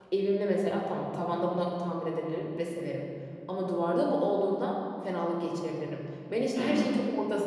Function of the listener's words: listening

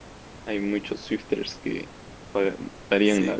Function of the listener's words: taking over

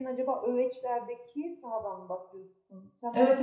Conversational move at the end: taking over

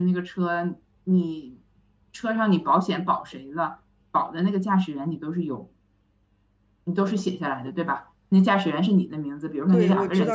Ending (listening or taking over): taking over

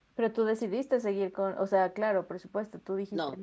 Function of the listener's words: taking over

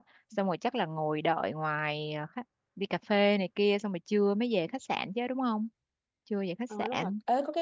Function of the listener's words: taking over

